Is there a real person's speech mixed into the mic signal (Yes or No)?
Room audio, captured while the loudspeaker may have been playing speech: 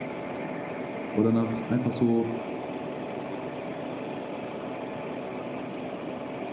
Yes